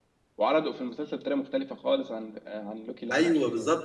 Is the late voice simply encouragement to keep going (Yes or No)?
No